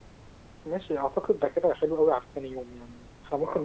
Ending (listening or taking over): listening